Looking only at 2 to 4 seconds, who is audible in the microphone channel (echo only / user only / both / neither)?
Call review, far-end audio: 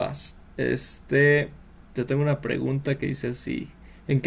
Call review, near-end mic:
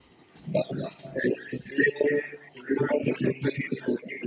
echo only